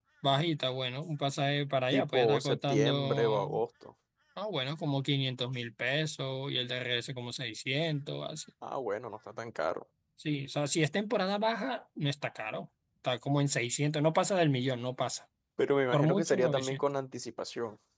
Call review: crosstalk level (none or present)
present